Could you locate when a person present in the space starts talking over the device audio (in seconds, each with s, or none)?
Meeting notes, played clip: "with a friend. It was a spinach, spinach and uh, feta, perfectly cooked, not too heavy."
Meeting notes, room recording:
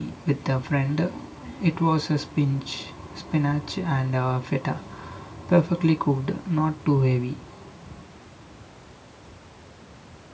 none